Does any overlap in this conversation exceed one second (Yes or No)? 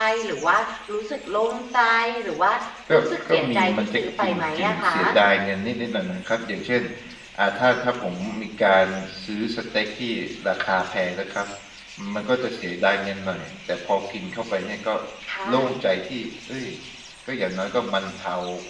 Yes